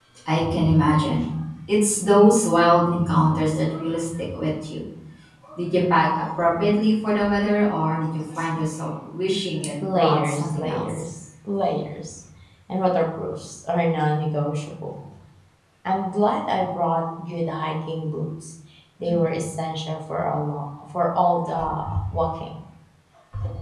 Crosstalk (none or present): present